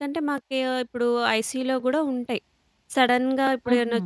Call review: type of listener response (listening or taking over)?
listening